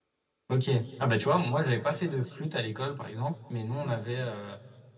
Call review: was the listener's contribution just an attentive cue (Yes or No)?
Yes